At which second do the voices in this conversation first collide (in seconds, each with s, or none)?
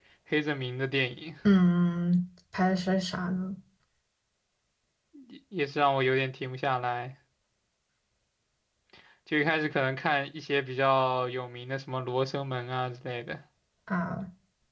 none